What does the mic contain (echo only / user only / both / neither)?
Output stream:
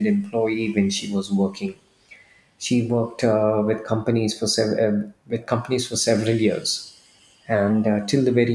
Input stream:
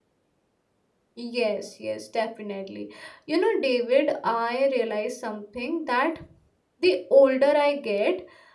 user only